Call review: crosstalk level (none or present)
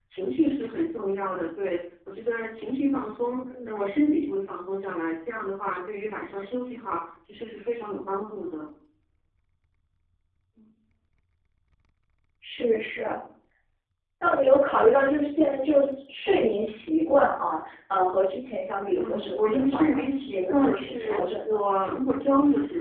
present